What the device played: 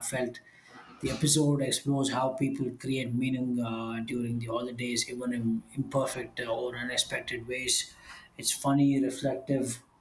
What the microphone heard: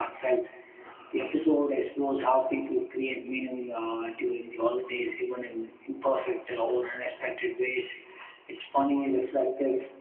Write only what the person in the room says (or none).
none